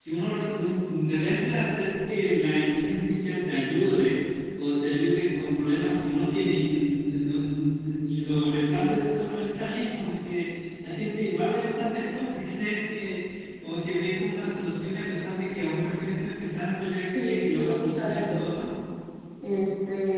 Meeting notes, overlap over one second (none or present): present